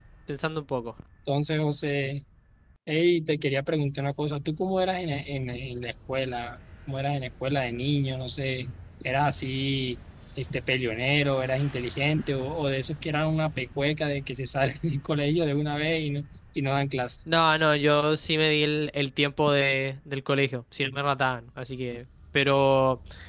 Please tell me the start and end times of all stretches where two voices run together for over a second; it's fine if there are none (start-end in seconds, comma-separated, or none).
none